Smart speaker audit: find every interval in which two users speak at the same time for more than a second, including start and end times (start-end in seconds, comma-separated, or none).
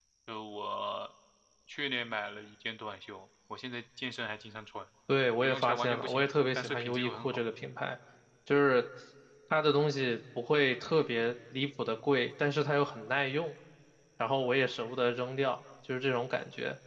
5.4-7.4